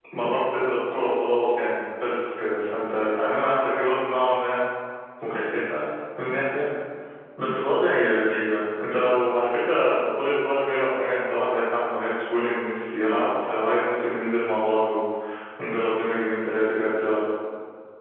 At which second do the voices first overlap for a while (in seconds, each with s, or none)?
none